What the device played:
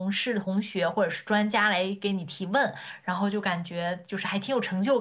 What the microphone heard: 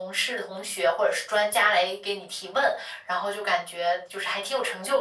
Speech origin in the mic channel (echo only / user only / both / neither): echo only